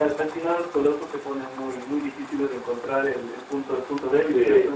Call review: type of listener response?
taking over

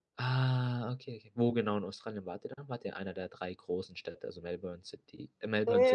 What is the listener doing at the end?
taking over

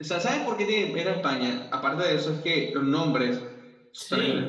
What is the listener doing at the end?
taking over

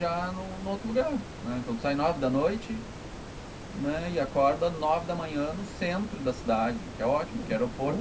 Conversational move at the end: listening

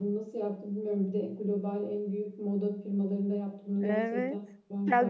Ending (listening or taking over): taking over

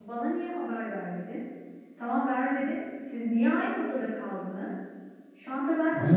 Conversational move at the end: taking over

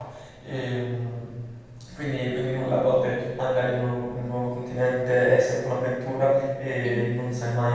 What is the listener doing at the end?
listening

